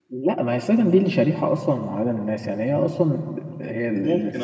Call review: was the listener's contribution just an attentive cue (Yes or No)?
Yes